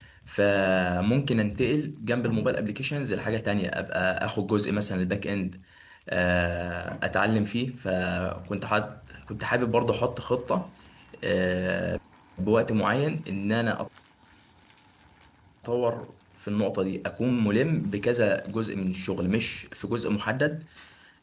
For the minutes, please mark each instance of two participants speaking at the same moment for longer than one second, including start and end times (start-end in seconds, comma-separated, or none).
none